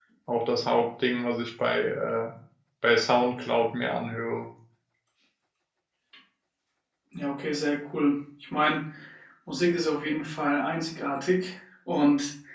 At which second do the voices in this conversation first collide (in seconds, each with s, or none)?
none